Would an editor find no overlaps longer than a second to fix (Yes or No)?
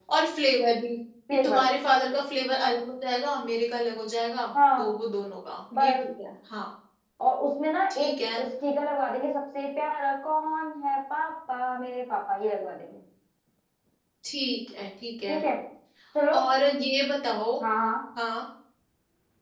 Yes